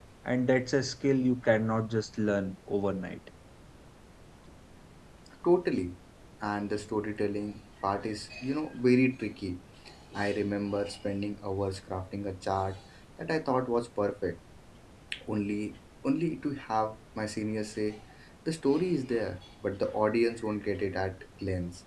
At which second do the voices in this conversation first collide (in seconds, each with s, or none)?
none